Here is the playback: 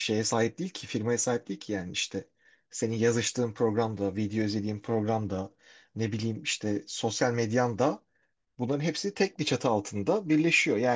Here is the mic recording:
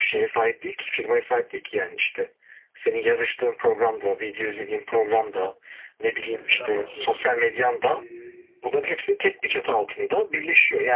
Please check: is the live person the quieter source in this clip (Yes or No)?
Yes